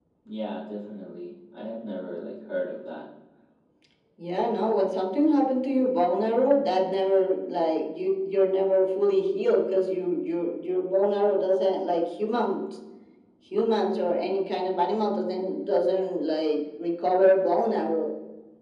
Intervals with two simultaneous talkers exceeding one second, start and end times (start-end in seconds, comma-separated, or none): none